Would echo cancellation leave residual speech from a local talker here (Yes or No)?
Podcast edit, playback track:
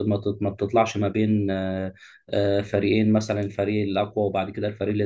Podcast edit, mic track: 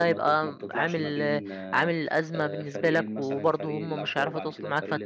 Yes